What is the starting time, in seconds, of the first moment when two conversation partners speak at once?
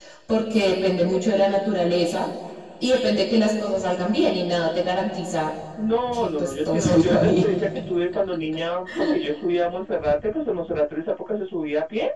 6 s

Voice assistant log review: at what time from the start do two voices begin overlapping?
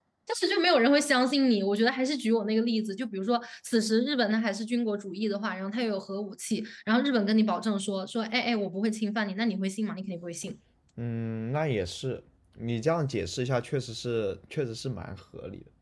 none

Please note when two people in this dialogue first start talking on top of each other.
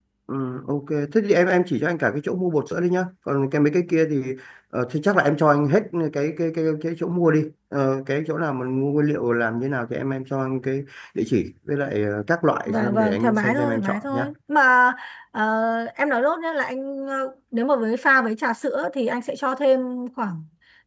13 s

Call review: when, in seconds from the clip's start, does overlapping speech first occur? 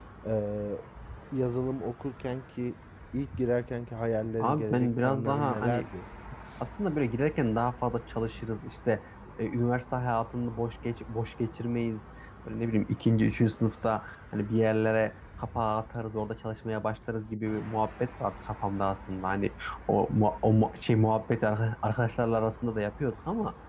4 s

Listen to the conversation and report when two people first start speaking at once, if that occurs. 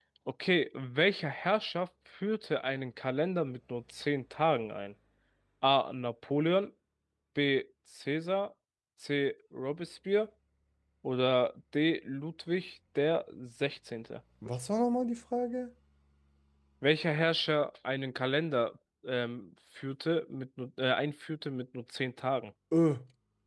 none

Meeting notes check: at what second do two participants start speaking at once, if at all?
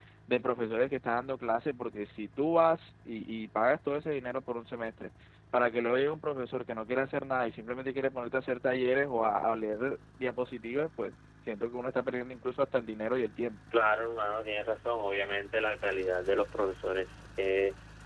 none

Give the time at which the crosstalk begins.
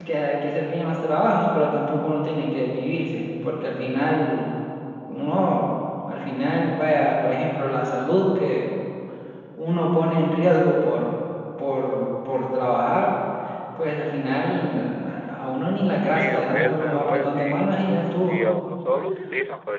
16 s

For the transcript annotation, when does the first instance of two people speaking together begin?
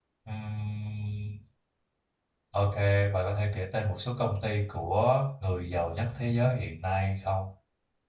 none

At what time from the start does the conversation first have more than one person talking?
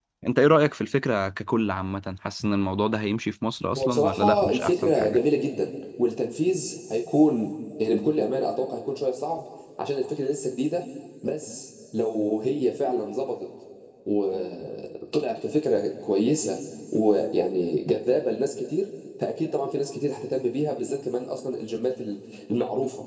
4 s

